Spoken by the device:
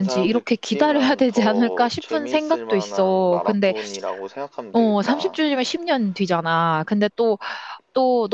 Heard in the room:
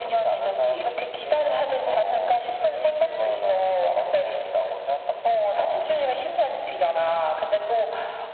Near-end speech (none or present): none